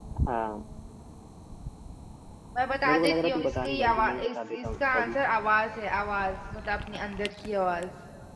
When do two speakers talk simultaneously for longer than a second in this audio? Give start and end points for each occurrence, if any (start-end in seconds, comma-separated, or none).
2.8-5.2